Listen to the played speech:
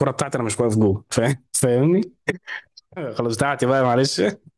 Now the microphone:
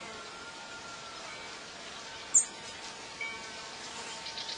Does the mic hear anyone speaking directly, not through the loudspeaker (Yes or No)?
No